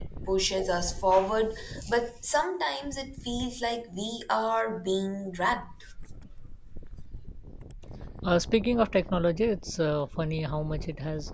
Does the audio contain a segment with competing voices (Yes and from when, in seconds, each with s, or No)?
No